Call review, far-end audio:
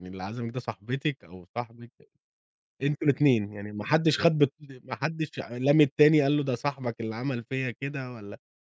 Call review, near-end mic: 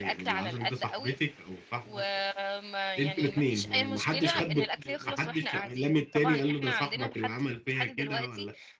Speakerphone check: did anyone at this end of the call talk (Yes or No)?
Yes